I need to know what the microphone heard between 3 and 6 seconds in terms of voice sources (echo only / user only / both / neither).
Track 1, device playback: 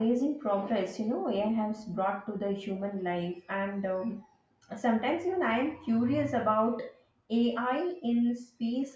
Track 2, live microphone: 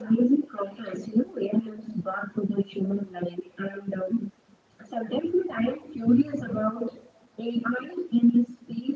echo only